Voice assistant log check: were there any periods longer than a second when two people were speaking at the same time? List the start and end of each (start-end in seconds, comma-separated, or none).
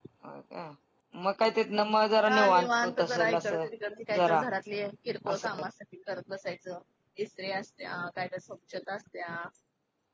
2.3-3.6